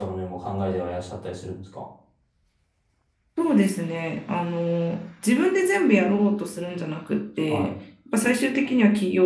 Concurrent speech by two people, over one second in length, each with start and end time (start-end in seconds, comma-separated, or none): none